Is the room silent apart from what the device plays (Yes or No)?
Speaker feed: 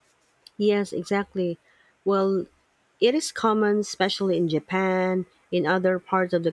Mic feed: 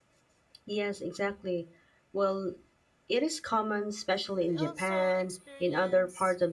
No